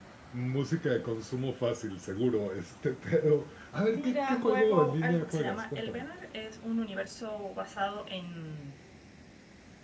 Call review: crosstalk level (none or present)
present